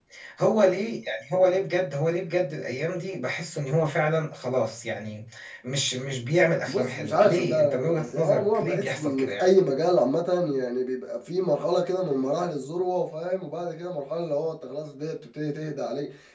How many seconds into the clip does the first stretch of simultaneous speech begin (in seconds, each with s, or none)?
6.6 s